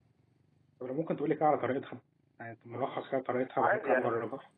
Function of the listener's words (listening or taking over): taking over